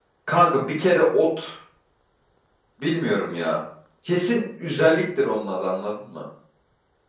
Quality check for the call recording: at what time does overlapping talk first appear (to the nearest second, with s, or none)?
none